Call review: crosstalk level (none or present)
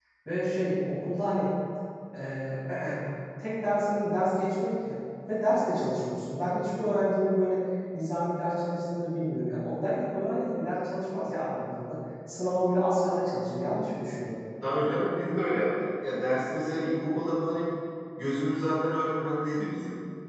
none